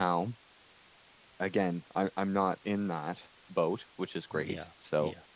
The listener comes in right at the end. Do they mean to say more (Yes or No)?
No